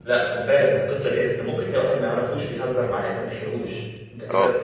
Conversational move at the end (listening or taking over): taking over